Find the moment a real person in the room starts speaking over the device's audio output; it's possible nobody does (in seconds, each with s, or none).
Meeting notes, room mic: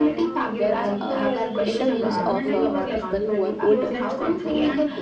0.5 s